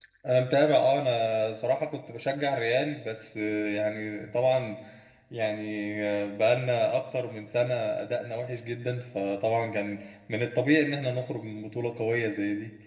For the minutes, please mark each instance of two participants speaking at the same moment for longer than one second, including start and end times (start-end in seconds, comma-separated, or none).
none